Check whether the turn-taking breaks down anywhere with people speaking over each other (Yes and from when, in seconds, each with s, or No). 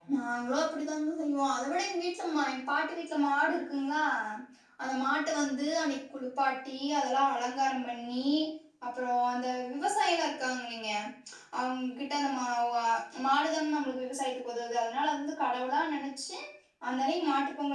No